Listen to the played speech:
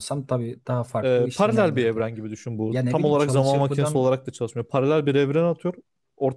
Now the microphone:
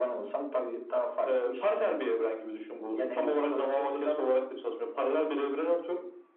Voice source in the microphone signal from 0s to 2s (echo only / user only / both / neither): echo only